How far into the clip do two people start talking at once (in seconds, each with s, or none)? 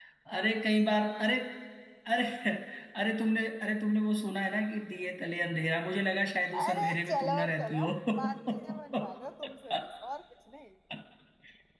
6.5 s